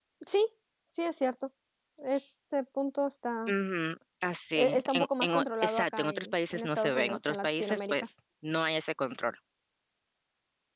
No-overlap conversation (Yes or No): No